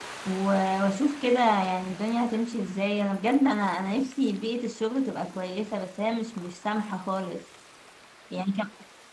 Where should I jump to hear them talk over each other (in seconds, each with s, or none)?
none